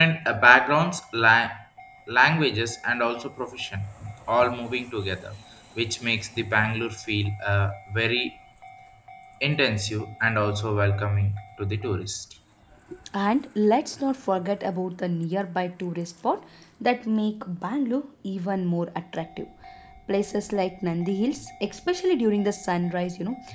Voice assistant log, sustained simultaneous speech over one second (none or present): none